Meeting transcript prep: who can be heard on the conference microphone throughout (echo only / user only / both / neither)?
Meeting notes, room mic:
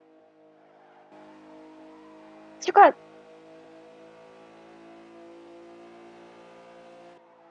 user only